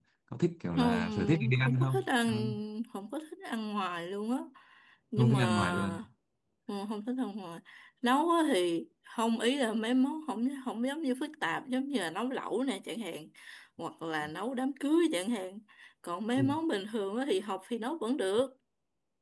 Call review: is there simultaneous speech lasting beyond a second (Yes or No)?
Yes